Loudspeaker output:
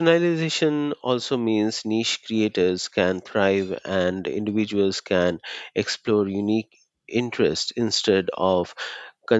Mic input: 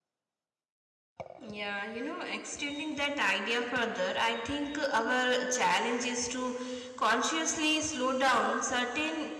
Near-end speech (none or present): present